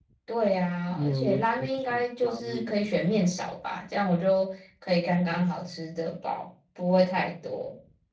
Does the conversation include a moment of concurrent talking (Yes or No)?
Yes